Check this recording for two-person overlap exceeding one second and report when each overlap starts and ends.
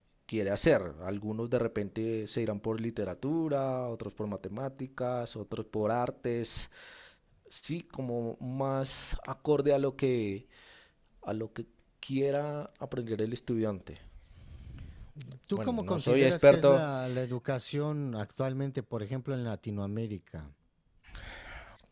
15.6-16.9

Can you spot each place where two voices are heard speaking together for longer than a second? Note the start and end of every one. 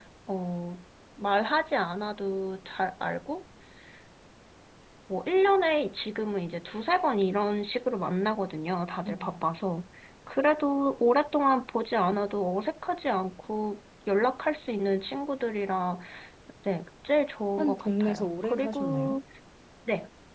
17.6-19.2

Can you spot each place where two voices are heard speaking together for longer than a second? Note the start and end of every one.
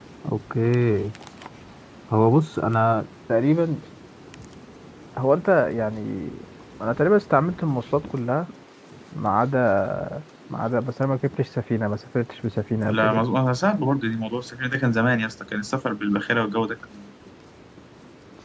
none

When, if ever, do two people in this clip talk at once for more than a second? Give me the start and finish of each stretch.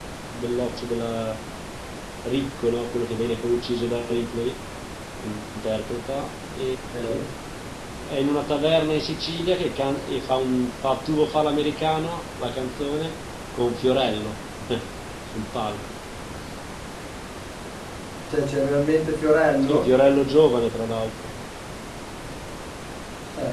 none

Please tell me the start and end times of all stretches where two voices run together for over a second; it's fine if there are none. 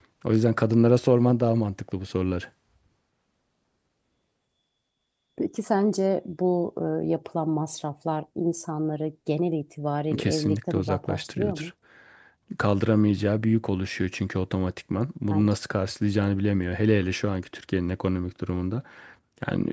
10.2-11.7

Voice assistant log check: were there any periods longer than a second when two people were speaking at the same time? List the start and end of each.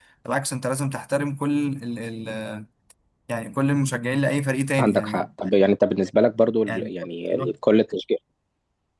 none

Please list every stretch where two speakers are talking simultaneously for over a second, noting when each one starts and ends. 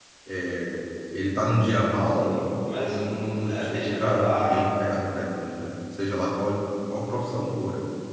2.9-4.6

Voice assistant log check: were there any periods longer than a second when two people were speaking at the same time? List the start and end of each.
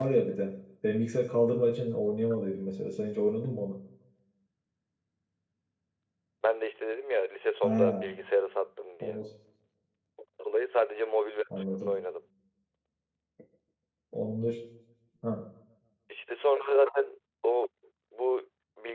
none

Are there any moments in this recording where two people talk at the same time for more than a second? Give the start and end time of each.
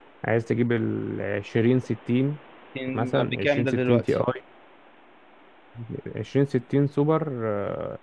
2.9-4.2

